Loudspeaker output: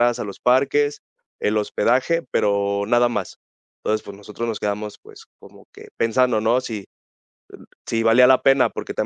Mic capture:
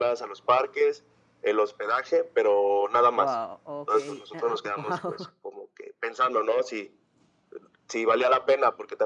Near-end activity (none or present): present